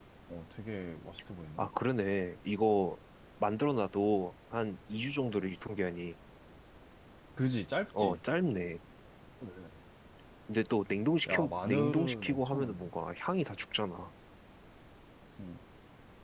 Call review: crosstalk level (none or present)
present